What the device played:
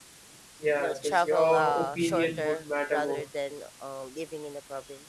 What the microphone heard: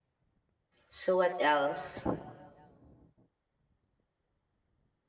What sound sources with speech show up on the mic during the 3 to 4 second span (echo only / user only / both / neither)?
neither